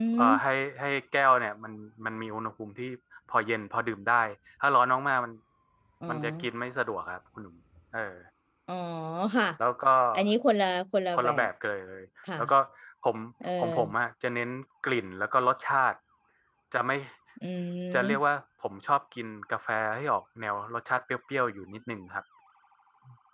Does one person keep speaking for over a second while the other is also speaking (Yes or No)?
No